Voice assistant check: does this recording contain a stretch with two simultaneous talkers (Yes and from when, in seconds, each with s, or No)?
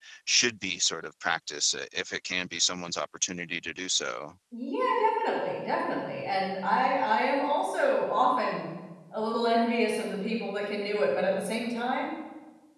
No